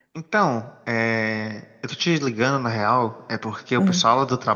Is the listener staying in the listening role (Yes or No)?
Yes